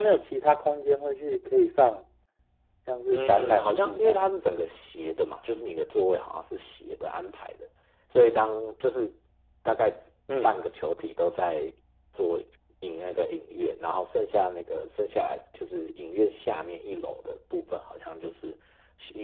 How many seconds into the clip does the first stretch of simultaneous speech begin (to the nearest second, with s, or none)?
3 s